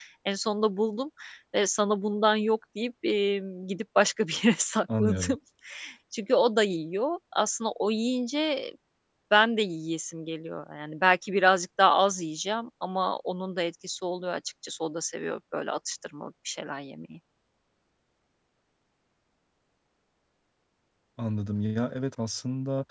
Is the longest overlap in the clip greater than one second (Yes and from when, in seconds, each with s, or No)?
No